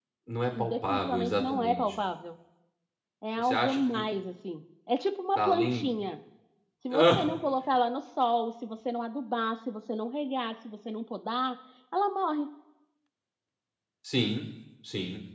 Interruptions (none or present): present